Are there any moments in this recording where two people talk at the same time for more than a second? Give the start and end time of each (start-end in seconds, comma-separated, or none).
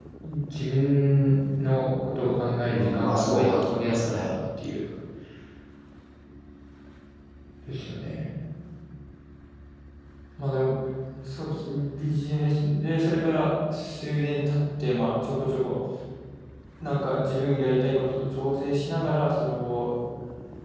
2.7-4.3